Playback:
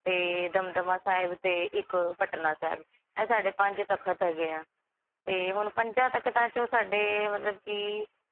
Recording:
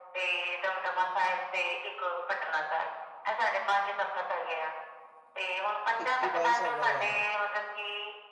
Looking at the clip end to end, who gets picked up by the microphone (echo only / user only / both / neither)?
both